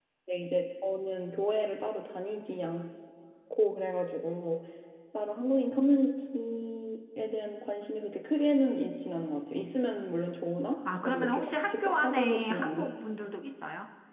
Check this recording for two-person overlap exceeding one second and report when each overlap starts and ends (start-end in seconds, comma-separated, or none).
10.8-13.0